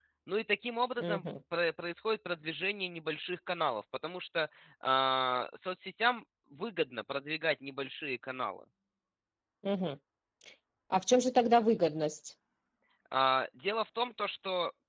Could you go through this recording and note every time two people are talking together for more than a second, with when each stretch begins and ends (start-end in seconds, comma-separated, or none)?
none